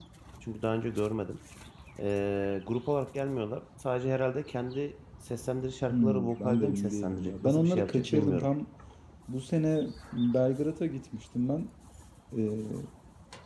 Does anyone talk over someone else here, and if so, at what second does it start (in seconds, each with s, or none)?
5.9 s